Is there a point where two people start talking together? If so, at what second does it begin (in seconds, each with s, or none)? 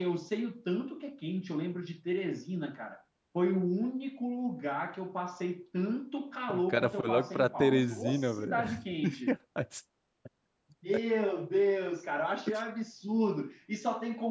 6.5 s